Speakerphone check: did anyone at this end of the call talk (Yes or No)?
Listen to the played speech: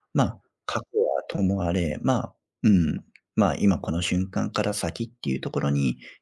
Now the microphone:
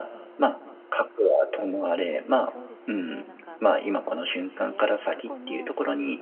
Yes